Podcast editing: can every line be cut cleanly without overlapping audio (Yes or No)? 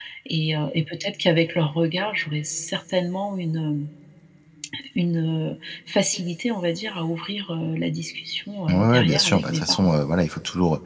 No